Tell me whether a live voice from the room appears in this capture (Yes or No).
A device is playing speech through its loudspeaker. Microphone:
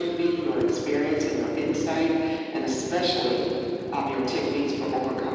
No